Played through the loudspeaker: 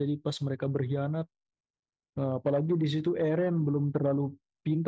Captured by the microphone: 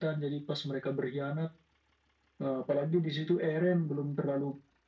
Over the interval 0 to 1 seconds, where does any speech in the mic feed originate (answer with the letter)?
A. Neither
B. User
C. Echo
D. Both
C